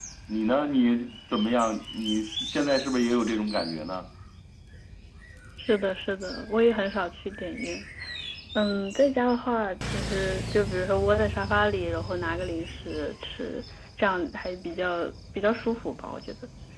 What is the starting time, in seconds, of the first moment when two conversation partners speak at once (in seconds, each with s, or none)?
none